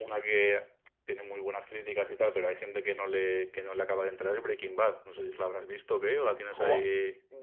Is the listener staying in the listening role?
No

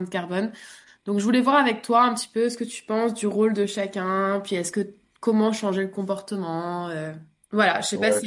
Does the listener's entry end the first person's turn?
Yes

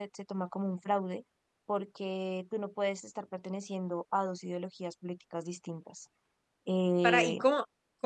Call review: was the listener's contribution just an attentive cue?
No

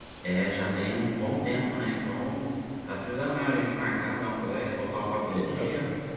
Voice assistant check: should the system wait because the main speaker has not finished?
No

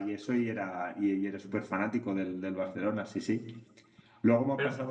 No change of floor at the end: Yes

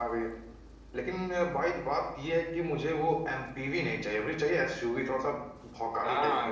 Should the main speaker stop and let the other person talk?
Yes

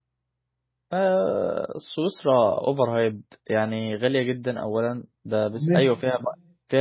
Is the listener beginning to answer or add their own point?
No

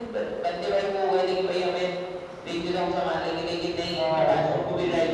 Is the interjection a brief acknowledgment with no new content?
Yes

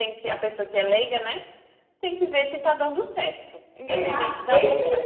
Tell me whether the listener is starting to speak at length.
Yes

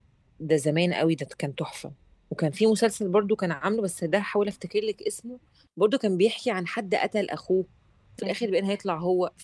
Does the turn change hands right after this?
No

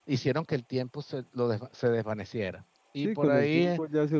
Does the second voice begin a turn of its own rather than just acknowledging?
Yes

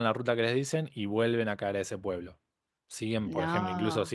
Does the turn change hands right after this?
No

